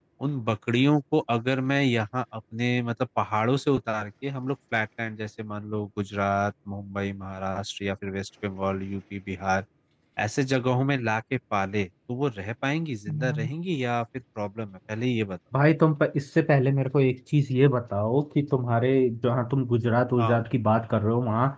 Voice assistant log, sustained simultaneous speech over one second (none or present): none